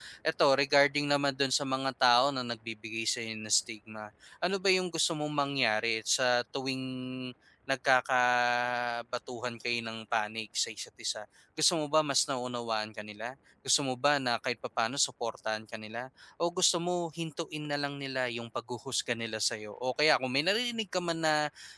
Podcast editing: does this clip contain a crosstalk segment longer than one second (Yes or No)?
No